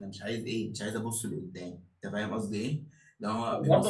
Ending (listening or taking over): taking over